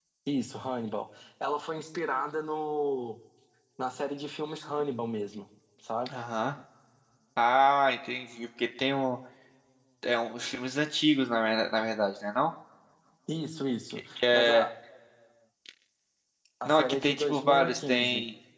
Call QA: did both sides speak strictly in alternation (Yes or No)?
No